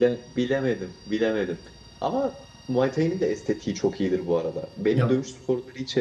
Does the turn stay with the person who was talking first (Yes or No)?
Yes